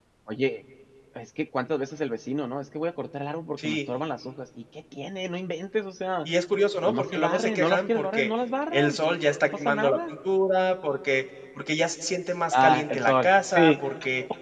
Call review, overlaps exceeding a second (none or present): present